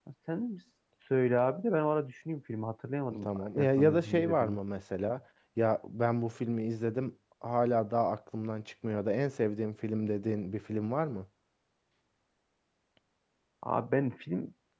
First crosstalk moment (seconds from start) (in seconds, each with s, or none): 3.1 s